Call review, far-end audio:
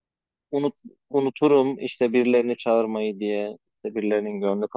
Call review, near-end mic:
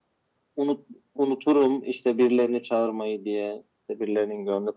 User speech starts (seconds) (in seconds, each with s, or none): none